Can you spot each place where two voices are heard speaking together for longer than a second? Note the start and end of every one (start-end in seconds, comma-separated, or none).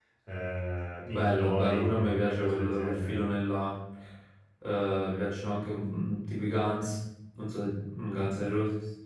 1.1-3.2